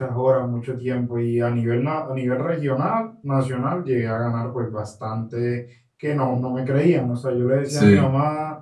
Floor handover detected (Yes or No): No